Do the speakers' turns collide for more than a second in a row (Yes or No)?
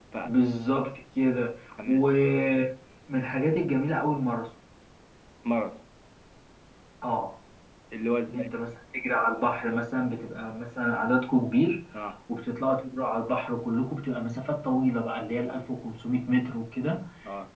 No